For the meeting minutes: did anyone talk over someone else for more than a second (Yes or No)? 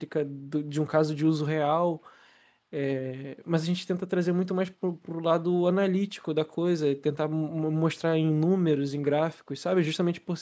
No